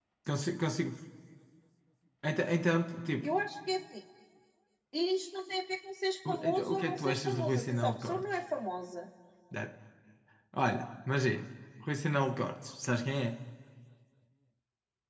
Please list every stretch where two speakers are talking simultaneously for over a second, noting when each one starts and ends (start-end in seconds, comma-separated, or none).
6.3-8.3